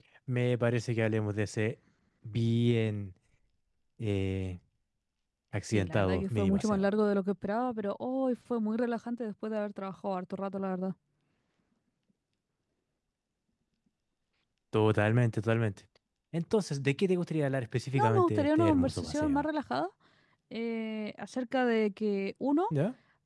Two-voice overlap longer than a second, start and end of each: 5.6-6.9, 17.9-19.5

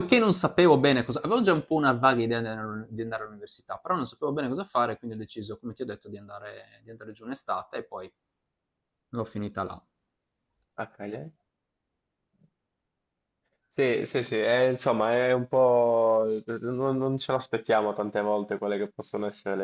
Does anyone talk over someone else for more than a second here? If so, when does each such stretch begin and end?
none

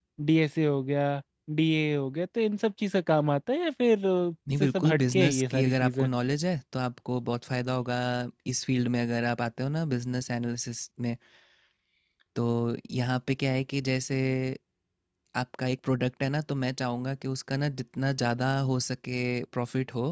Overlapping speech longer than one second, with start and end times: 4.6-6.1

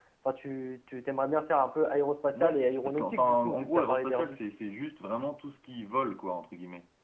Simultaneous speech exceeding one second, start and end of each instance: 2.3-4.4

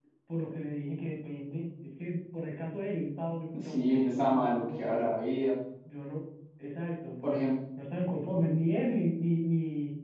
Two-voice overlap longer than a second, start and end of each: 3.6-5.0

